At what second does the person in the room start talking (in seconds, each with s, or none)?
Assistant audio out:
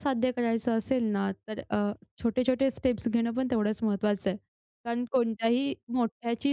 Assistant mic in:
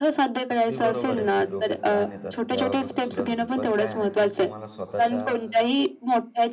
0.5 s